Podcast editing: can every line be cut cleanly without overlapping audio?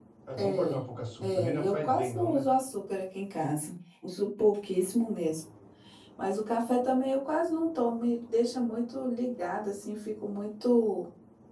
No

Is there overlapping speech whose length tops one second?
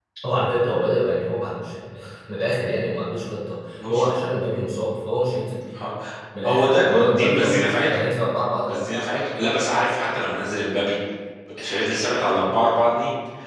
Yes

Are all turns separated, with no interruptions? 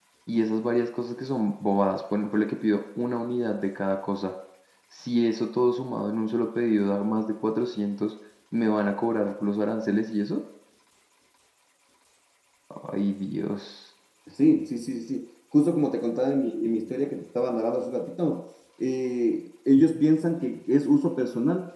Yes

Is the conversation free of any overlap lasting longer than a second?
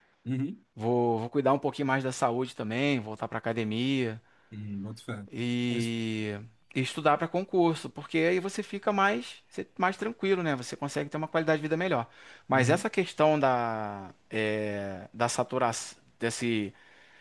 Yes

